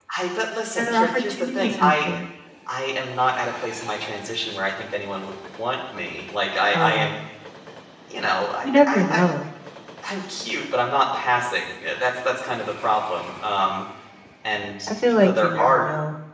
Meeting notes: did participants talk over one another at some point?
Yes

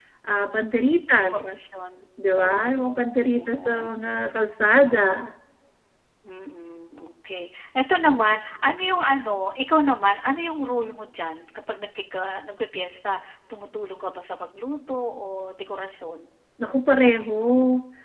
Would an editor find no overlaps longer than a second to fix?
No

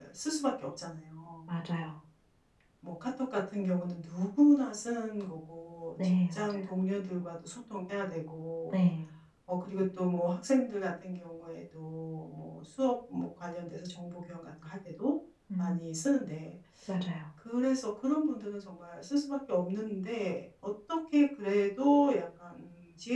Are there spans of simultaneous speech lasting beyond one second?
No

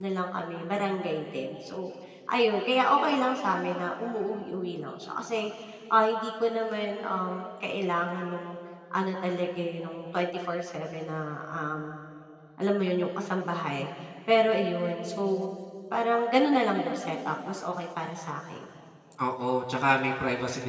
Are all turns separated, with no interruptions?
Yes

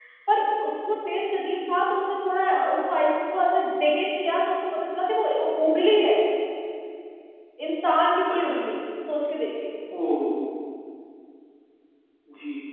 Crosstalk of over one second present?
No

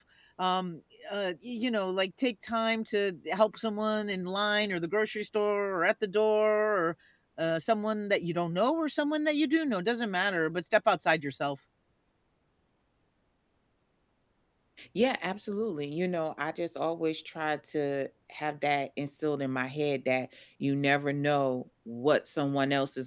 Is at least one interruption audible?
No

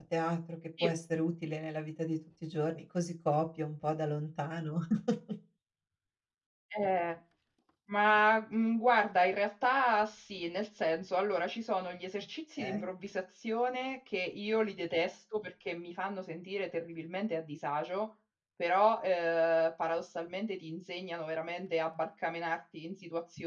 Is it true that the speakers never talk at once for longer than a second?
Yes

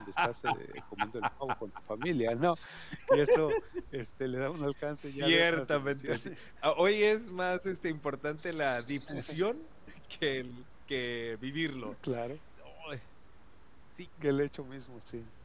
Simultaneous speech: Yes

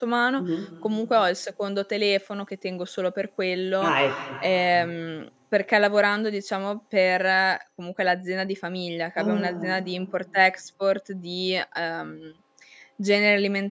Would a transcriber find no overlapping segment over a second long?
Yes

